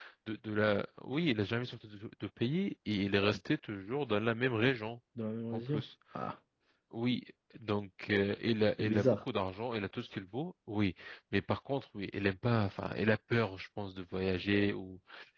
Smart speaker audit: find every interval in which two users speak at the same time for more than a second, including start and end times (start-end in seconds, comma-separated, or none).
none